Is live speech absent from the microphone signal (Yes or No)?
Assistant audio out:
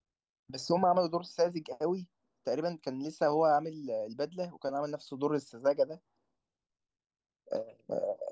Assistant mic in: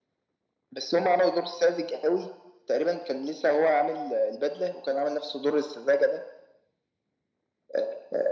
Yes